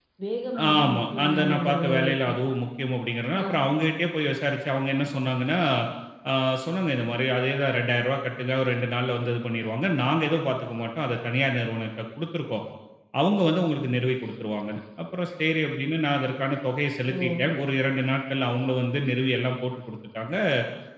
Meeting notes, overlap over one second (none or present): present